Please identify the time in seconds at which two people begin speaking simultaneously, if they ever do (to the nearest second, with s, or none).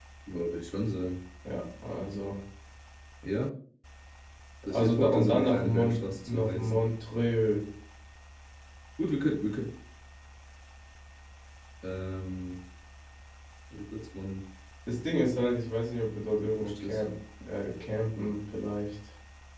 5 s